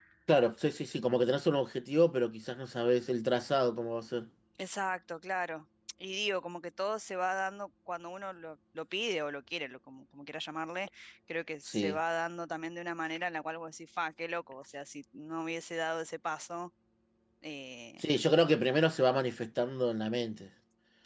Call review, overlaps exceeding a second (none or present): none